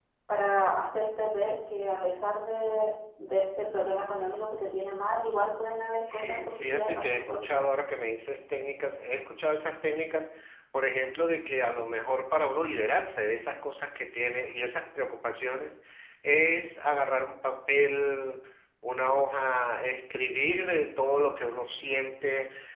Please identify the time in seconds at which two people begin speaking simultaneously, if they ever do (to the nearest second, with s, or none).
6 s